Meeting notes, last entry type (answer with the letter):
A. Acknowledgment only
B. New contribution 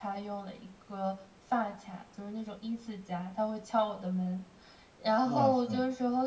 A